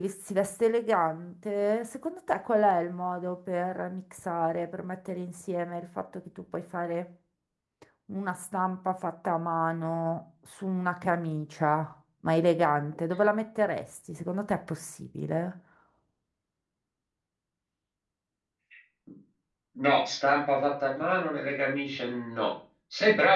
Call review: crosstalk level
none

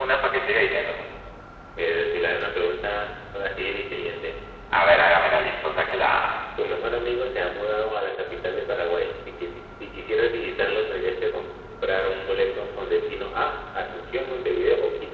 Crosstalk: none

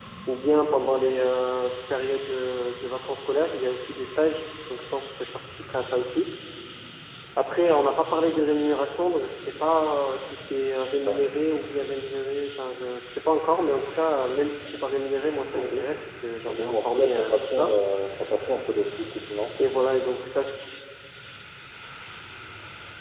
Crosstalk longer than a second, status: present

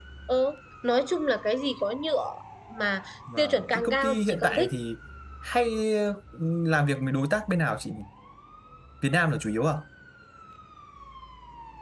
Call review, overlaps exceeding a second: present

